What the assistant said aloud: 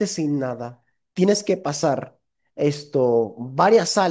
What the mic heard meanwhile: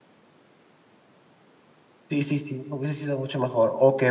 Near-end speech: present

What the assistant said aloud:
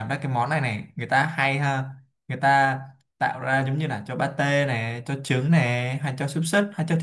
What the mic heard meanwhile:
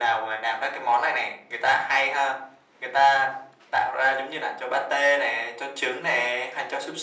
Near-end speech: none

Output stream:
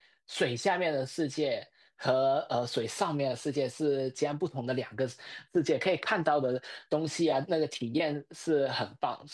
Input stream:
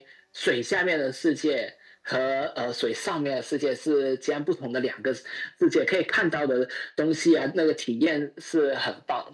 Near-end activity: none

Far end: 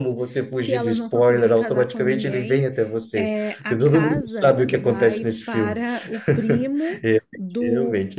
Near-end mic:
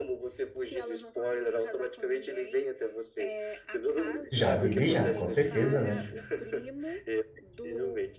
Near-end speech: present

